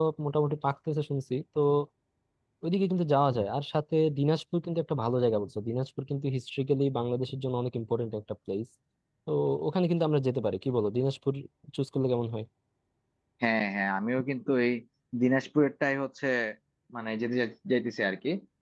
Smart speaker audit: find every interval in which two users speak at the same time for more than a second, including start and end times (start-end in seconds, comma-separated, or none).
none